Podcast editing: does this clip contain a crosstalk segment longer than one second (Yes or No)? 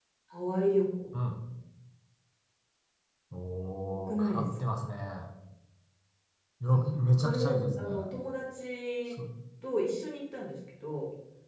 Yes